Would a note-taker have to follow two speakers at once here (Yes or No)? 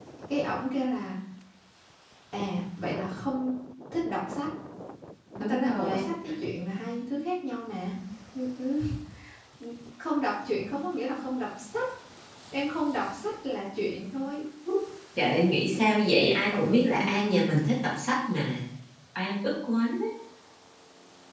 Yes